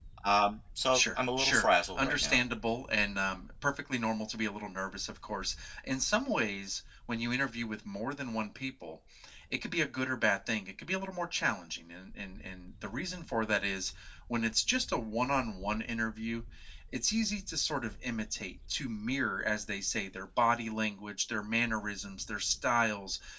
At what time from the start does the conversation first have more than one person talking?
0.9 s

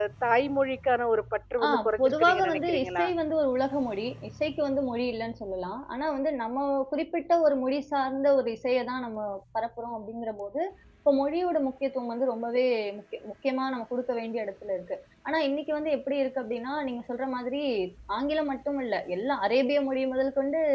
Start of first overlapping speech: 1.6 s

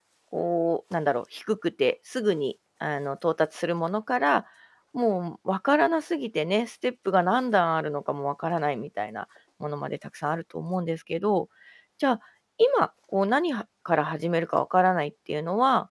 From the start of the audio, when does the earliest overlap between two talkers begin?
none

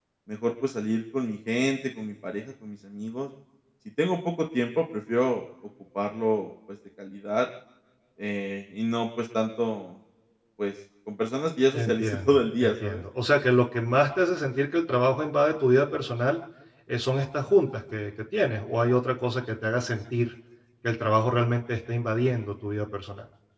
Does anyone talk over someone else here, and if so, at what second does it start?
11.7 s

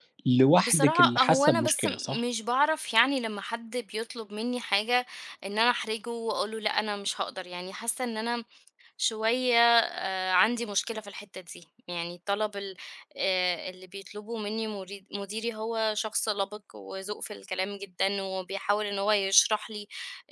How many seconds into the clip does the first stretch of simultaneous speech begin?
0.6 s

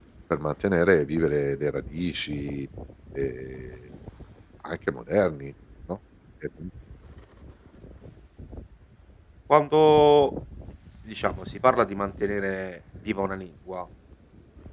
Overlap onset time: none

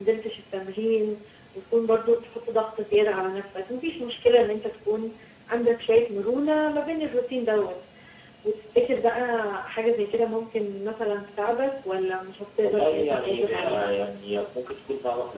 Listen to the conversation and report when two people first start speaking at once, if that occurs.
12.6 s

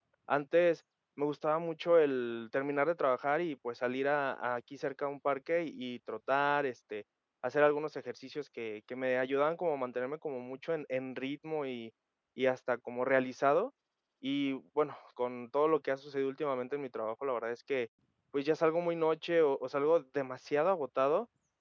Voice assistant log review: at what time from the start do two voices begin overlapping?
none

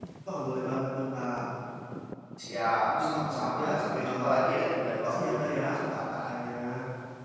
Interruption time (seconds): 3.0 s

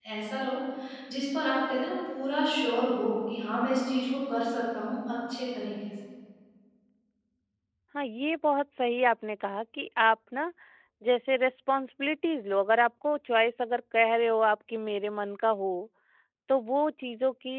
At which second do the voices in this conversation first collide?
none

